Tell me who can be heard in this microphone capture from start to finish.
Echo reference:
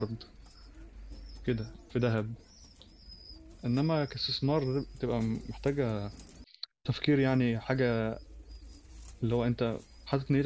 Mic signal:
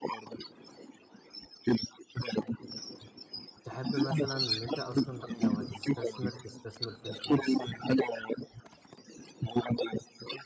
both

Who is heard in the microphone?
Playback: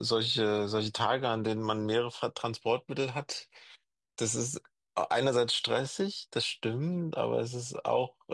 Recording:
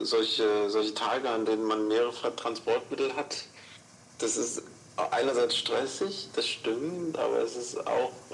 echo only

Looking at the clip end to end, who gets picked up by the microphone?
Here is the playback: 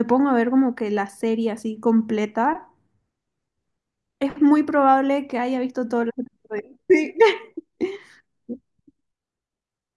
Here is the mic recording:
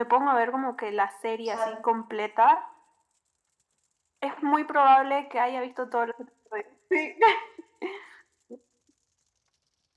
both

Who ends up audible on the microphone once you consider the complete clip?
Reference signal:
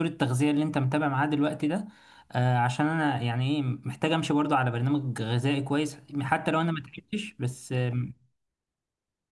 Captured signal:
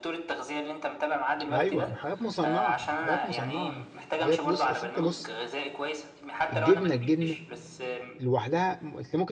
both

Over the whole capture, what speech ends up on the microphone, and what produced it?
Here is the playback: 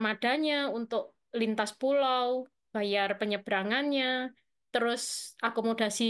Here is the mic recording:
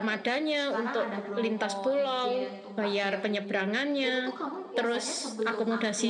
both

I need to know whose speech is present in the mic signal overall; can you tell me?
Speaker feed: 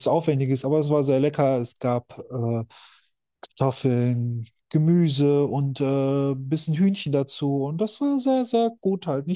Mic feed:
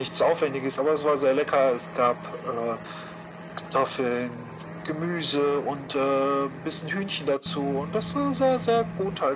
echo only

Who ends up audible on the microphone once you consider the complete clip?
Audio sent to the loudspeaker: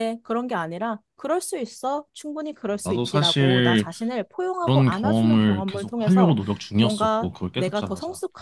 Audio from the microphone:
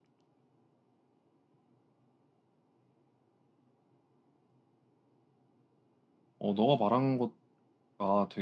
user only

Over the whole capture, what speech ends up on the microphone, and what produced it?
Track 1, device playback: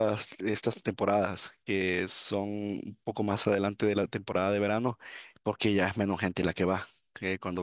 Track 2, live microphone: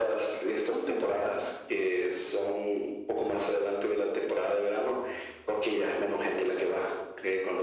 both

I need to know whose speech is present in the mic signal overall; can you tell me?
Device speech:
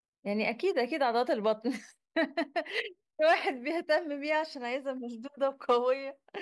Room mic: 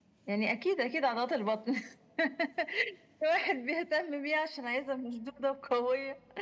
echo only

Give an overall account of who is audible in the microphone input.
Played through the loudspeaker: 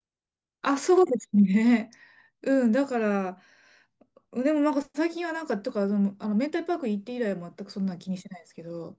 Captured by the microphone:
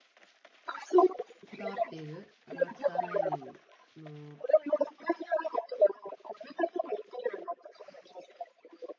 both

